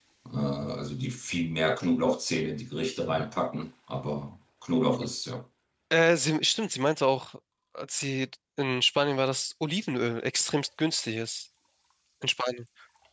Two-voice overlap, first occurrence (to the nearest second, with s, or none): none